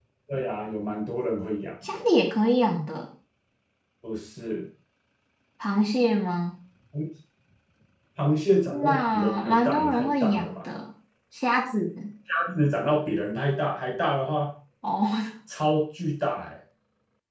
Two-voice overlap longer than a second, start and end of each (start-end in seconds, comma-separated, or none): 8.7-10.6